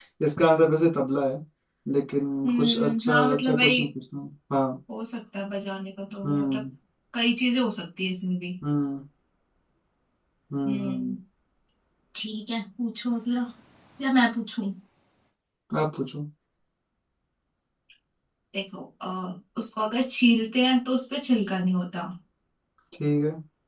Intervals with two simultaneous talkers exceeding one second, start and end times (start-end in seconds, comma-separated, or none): 2.5-3.8